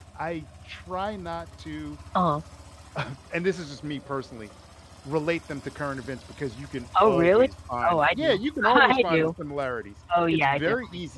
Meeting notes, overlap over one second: present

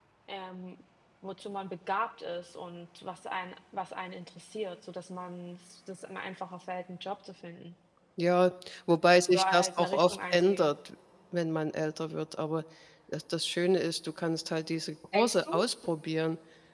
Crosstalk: present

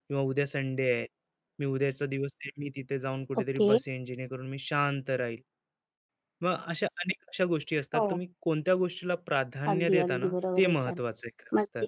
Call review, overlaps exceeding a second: present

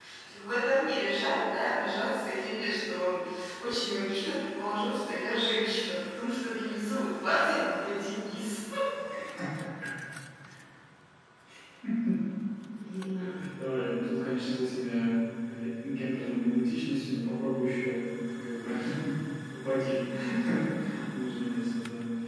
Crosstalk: none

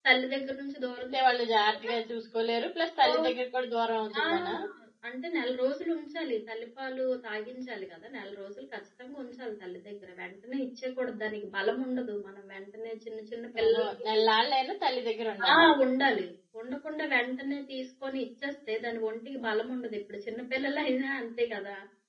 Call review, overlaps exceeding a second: none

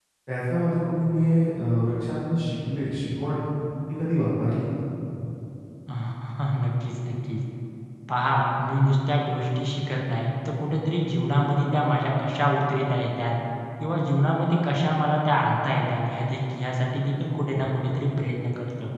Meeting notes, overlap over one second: none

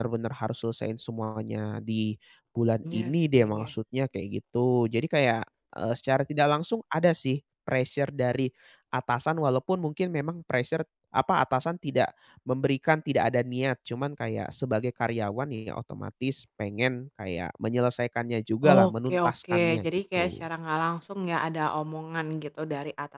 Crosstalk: present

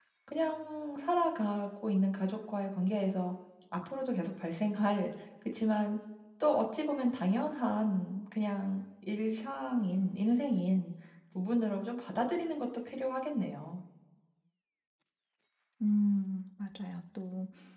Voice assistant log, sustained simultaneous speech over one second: none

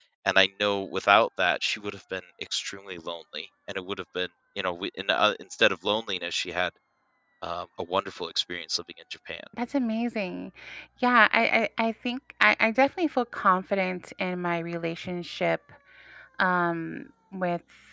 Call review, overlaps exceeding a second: none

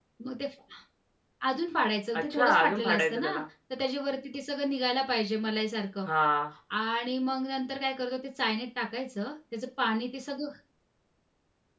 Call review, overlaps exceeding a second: present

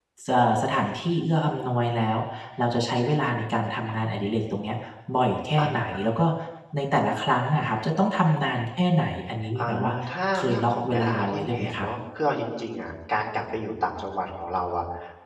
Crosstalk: present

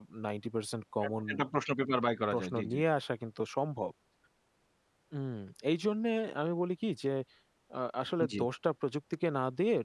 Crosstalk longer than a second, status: none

